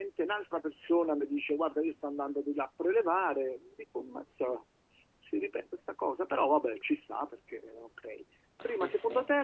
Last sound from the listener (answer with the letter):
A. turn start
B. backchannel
B